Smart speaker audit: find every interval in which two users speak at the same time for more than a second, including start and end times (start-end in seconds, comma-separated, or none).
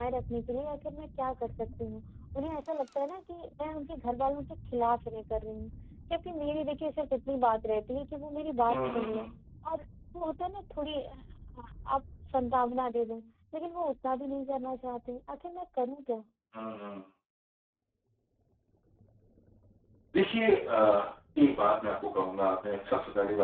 none